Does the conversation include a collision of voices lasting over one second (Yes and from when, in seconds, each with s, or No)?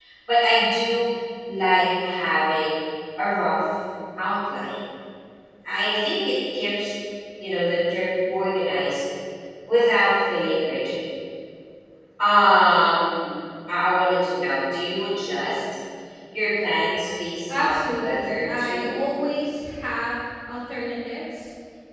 Yes, from 17.5 s